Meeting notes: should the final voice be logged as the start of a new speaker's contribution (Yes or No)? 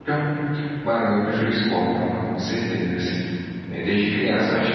Yes